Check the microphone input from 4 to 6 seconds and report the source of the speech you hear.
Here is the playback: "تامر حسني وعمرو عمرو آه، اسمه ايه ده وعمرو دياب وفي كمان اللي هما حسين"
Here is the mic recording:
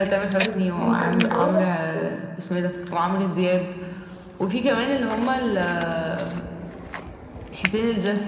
echo only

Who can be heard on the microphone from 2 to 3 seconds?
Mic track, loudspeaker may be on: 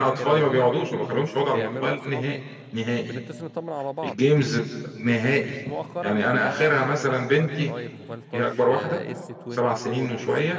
both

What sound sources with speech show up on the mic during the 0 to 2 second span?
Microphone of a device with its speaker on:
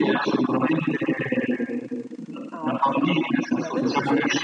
echo only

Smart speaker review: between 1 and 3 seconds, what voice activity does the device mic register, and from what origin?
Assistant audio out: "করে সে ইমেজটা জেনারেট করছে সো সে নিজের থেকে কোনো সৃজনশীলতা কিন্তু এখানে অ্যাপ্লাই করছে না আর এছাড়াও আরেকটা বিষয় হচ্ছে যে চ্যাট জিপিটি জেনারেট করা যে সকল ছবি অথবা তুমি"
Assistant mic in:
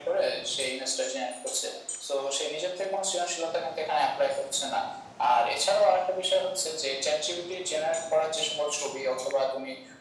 echo only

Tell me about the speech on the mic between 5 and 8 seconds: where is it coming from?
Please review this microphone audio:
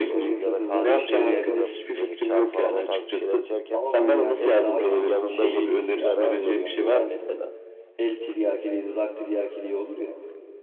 both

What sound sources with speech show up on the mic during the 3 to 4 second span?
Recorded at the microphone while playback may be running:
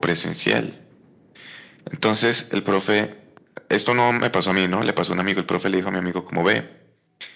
echo only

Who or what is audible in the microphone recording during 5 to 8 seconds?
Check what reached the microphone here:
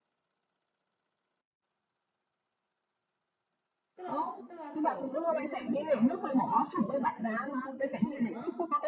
both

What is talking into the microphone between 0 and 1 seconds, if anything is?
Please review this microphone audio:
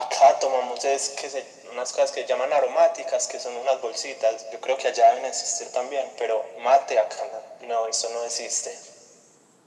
echo only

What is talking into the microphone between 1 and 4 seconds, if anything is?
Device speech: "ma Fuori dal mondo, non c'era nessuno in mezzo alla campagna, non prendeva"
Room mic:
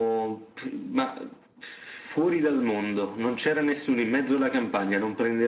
echo only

